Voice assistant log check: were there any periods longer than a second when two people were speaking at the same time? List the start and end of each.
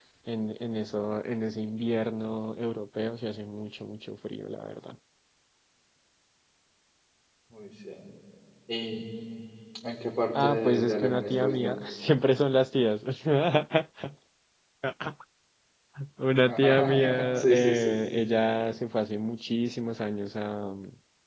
10.3-11.7, 16.4-18.0

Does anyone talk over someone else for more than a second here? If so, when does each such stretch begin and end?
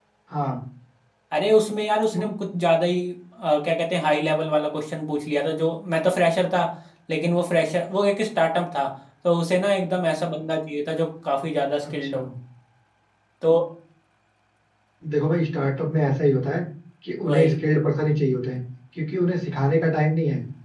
none

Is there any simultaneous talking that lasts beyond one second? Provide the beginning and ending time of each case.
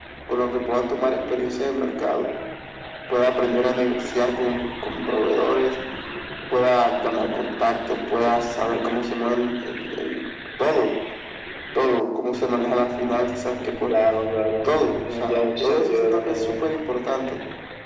15.2-16.6

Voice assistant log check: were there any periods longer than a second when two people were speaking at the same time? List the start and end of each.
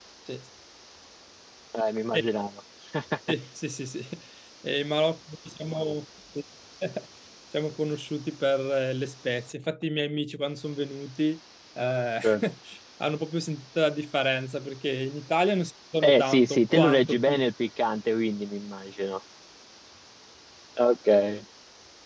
16.0-17.5

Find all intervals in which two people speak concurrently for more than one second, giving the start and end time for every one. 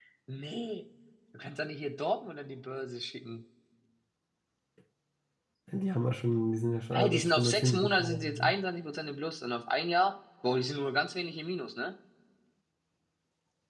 6.9-8.5

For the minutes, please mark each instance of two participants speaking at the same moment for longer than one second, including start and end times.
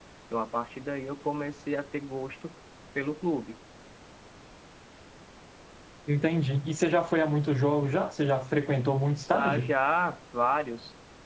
none

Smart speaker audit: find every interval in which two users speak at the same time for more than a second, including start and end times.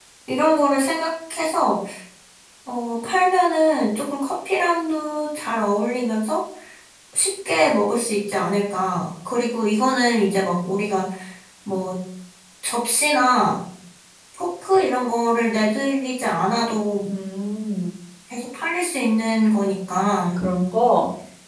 none

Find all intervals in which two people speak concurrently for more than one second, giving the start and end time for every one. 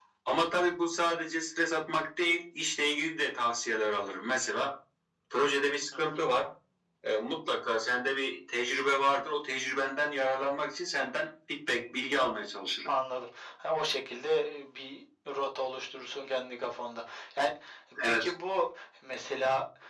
none

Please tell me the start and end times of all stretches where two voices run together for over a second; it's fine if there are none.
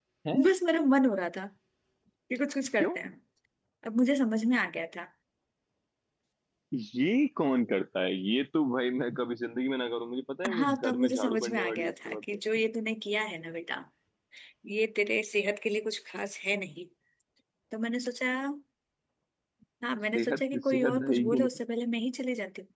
10.5-12.2, 20.1-21.5

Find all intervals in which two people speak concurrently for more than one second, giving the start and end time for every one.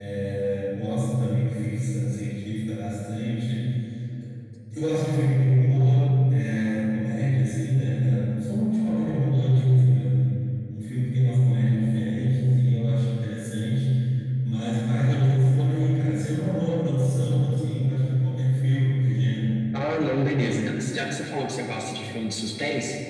none

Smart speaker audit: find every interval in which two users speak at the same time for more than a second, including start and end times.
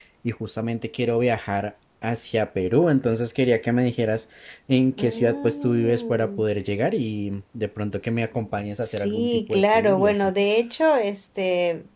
5.0-6.4, 8.8-10.3

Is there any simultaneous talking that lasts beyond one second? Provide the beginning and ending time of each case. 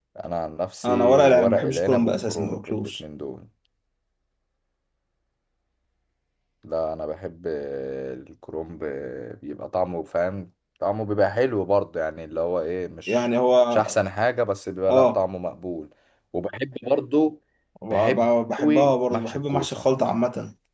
0.8-2.9, 17.9-19.9

